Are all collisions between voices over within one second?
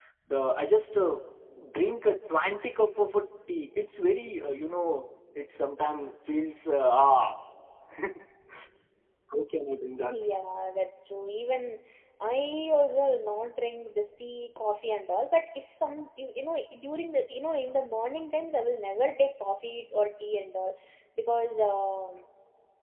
Yes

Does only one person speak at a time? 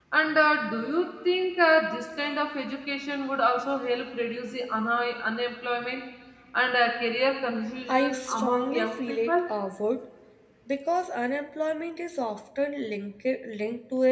No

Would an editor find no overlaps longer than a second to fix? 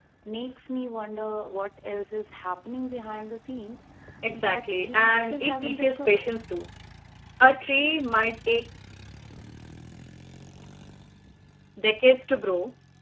No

